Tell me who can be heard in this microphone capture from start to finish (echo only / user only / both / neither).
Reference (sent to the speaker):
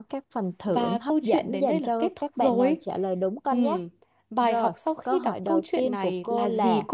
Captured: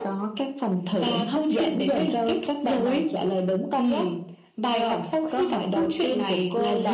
echo only